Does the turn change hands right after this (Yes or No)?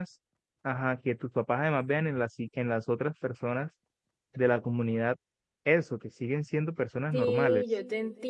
Yes